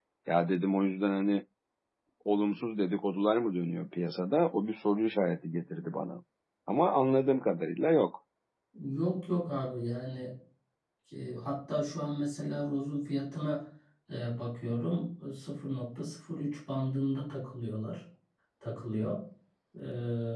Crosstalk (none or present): none